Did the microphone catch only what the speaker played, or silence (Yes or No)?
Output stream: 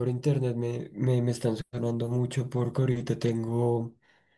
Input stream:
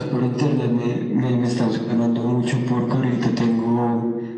Yes